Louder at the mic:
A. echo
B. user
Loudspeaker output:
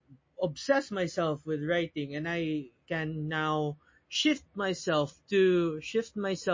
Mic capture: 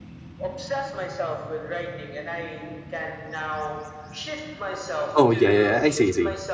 B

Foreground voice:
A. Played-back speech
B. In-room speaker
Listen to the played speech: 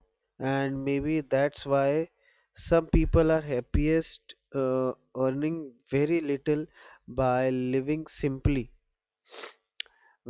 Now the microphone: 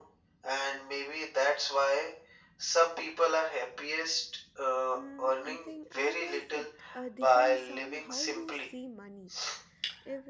A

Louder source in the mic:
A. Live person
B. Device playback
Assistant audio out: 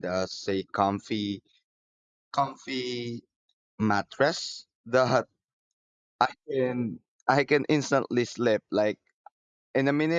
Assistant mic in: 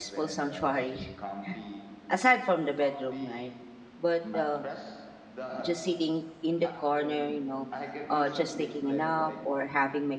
A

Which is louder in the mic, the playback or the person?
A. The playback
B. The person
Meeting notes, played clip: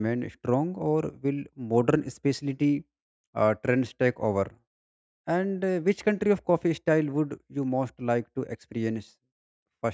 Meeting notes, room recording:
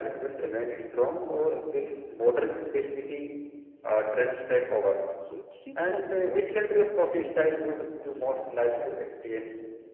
A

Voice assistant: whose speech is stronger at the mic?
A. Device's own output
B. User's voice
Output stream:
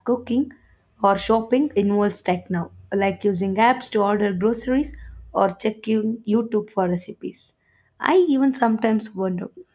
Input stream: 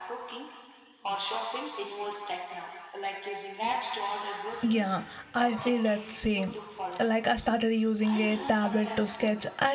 B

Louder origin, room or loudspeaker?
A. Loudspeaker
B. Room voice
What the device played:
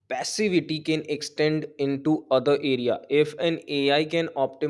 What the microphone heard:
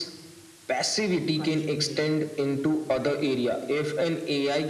A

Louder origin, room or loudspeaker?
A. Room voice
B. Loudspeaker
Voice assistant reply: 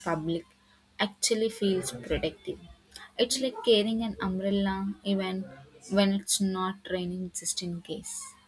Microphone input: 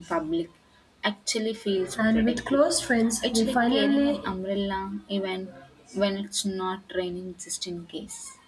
A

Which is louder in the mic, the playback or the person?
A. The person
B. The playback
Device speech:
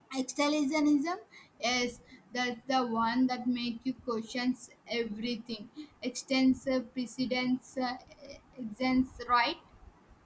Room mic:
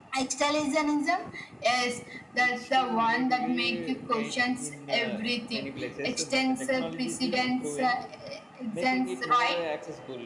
B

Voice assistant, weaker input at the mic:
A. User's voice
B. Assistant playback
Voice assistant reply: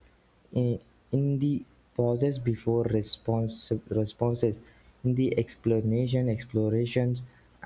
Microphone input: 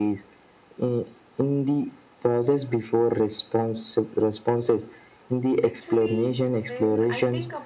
A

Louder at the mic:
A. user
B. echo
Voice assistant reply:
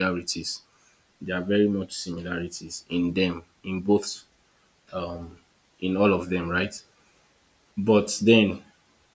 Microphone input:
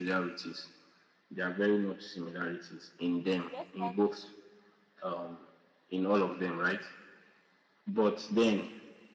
B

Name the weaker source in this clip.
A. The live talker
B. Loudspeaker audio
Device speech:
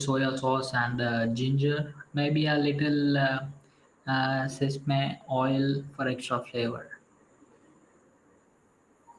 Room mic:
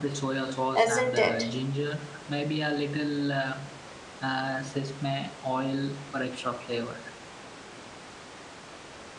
B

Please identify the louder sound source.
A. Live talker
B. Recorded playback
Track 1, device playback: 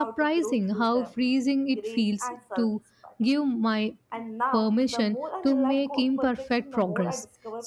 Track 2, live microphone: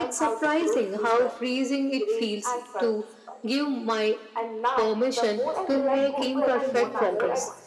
B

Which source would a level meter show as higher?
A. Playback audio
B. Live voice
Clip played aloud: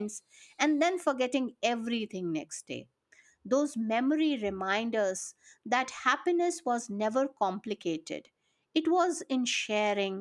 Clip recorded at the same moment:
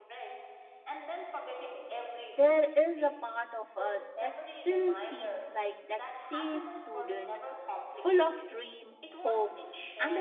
B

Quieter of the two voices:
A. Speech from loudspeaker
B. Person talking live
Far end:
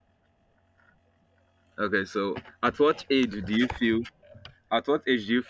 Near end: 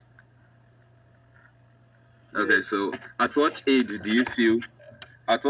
B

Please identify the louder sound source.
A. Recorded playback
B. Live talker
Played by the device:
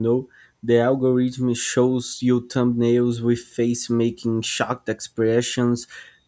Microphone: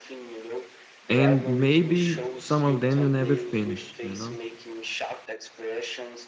B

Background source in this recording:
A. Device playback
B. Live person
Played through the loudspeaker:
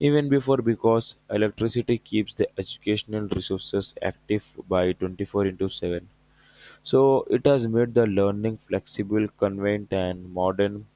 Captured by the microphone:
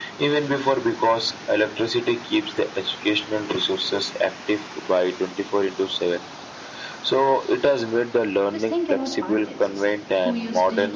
B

